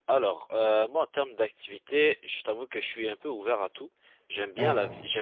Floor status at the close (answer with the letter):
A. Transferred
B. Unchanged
B